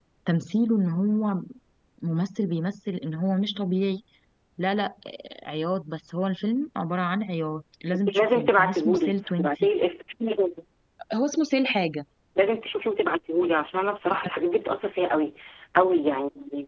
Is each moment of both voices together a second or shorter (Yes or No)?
No